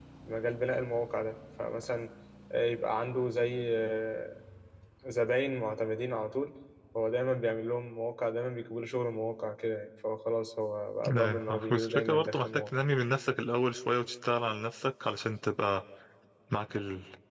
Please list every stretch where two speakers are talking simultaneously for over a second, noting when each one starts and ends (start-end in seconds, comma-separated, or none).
11.1-12.8